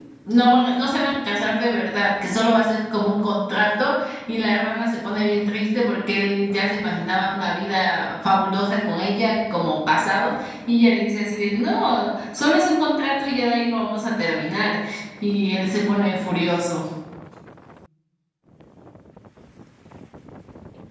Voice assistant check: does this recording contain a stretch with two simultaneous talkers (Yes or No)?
No